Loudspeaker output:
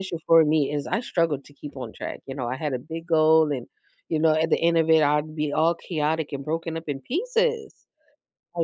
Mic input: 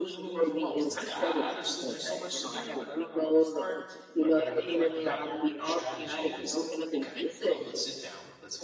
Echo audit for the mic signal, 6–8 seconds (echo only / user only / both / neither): both